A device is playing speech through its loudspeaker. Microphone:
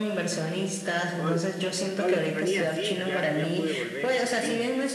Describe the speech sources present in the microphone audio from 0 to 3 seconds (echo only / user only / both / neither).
both